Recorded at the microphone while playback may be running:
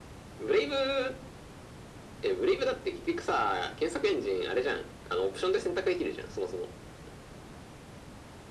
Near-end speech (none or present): none